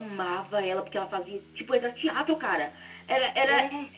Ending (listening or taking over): listening